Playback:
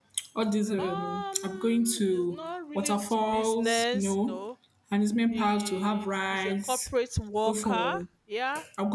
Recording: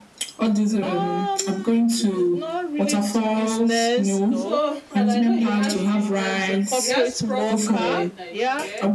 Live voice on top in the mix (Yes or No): No